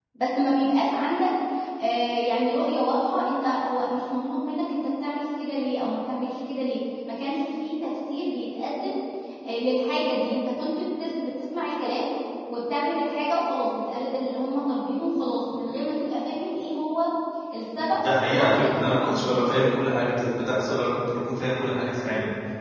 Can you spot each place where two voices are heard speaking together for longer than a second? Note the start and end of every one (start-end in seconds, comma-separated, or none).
17.8-19.6